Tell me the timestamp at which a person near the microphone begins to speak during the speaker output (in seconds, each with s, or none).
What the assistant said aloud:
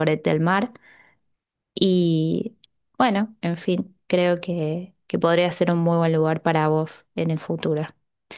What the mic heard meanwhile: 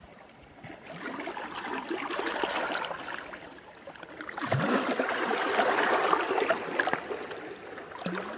none